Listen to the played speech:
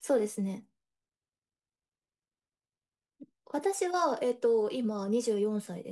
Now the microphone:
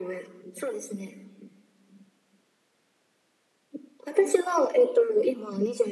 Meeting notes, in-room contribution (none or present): none